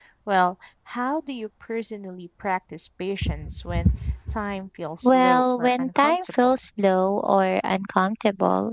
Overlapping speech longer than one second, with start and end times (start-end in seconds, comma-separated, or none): 5.0-6.6